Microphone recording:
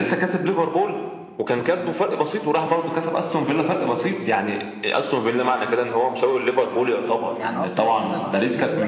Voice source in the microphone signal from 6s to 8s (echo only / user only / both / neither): both